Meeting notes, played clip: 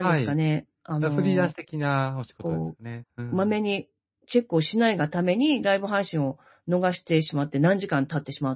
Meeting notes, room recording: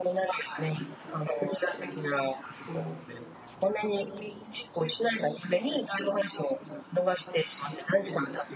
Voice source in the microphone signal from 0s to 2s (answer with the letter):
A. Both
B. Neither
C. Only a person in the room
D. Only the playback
D